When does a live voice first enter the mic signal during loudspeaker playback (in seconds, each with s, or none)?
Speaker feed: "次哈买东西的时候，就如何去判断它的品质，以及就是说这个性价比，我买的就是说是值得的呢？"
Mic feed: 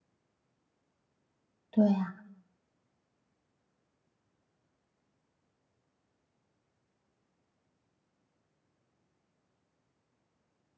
1.7 s